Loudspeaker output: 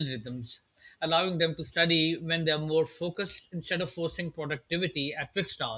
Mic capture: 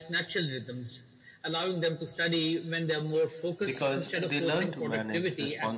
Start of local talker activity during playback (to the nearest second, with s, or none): 4 s